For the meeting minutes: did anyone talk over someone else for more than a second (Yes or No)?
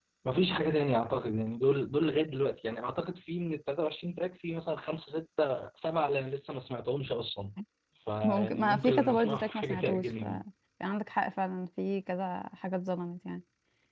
Yes